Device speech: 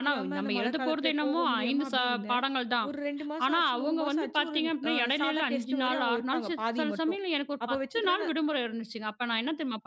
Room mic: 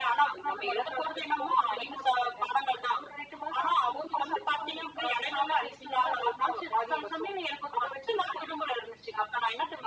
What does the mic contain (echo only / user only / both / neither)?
echo only